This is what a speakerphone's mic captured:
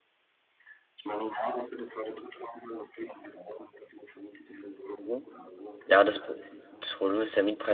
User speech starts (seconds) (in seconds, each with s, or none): 5.0 s